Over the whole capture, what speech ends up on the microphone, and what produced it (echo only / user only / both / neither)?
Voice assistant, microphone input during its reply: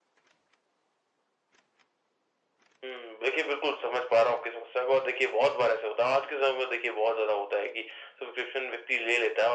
echo only